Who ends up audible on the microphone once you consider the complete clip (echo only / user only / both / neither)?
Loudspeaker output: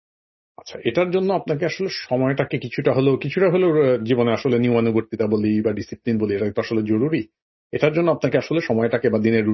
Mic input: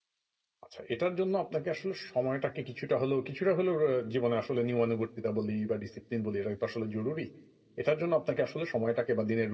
echo only